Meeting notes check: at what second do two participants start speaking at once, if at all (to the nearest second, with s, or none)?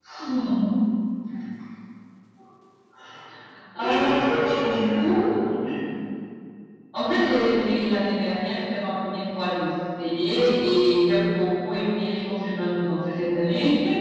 4 s